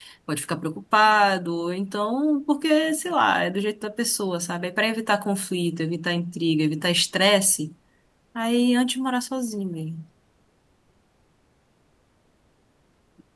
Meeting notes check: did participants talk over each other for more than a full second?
No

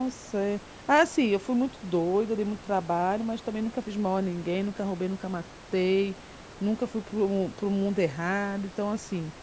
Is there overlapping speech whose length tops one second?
No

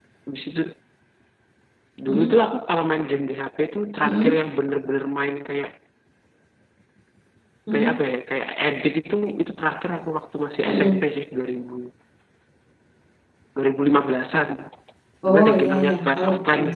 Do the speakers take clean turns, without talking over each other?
No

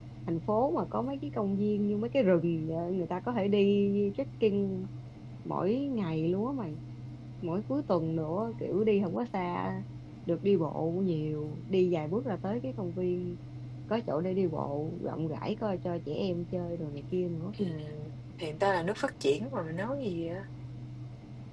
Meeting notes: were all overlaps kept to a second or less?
Yes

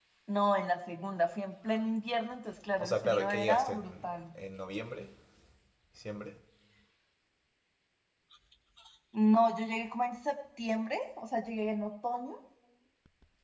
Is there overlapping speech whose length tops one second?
Yes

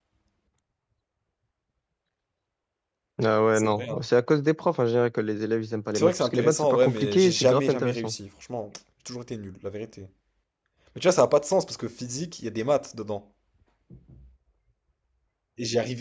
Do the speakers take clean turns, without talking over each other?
No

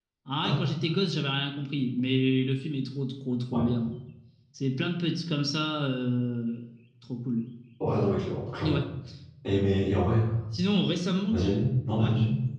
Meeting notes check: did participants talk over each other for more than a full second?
No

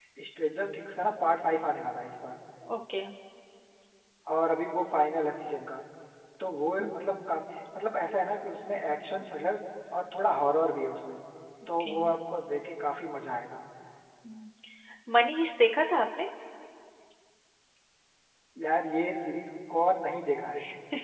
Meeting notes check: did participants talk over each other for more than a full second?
No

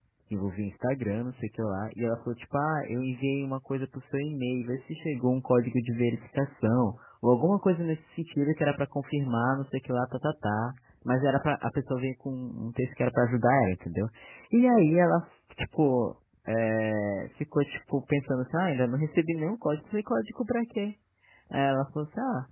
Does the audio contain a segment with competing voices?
No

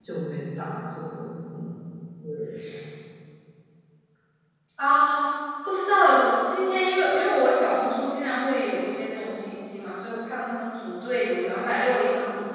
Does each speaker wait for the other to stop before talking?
Yes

